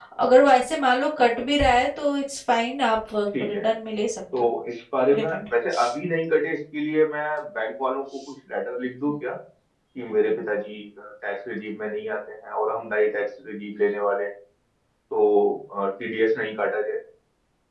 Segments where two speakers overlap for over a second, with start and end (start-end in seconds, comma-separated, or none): none